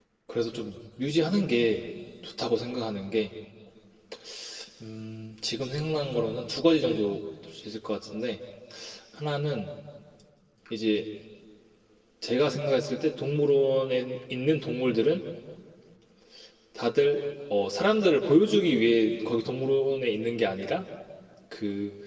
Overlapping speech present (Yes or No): No